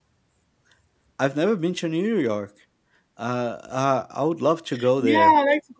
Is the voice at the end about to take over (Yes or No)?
Yes